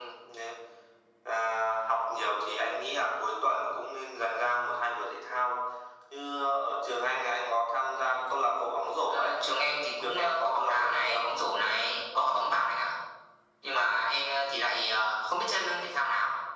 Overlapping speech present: Yes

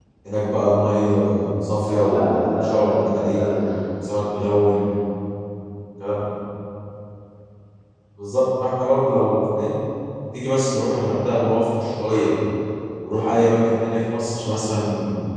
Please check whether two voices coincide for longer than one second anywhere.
Yes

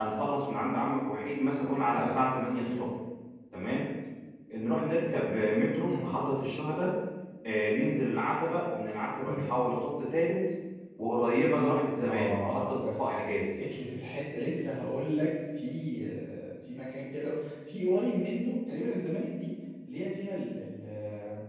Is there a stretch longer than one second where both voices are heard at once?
Yes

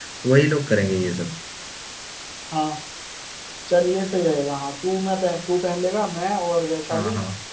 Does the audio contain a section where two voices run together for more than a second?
No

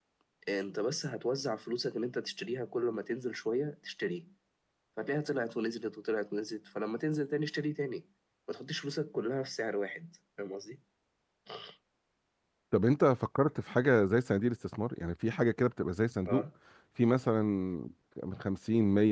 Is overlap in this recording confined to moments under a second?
Yes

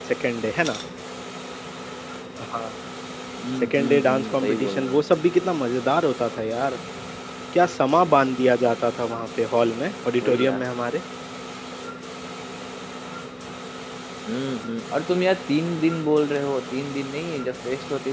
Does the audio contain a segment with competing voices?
Yes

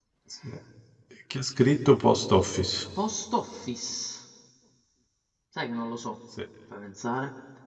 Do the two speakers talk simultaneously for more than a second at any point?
No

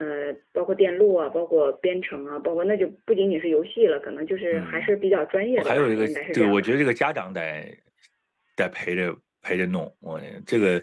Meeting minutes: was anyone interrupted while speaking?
Yes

